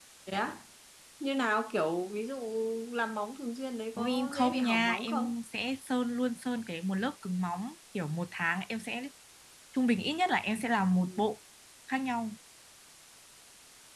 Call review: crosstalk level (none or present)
present